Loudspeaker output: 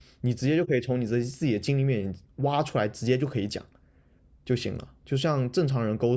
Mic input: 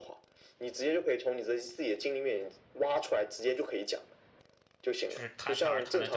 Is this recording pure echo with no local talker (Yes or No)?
No